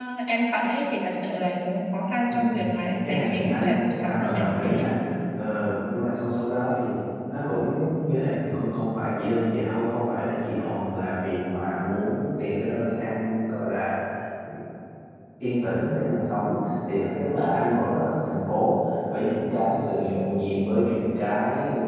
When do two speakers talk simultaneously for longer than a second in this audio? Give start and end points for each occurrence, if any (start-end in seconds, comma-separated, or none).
3.1-4.9